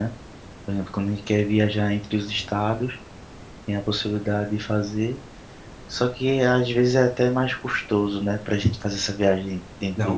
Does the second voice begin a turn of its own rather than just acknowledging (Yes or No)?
Yes